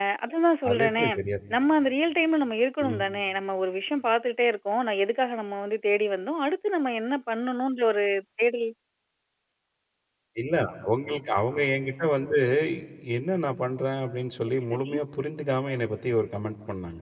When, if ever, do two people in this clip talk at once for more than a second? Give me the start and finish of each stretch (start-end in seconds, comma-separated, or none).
none